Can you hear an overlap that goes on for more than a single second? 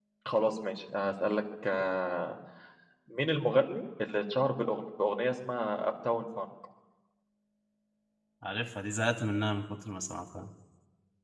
No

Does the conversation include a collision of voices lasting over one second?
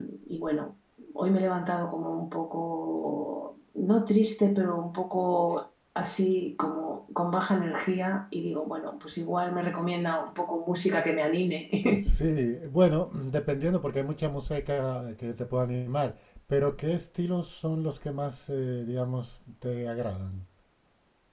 No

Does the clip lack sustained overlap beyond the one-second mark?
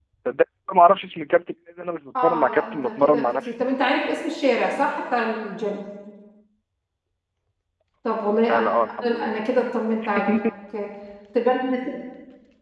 No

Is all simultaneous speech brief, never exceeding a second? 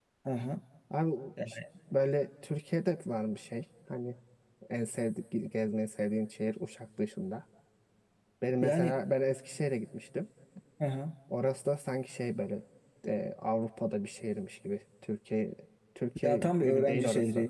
No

